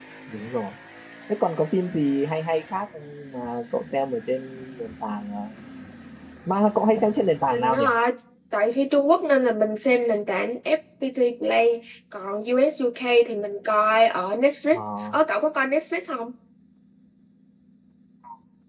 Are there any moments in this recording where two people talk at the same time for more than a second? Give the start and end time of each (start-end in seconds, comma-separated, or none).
none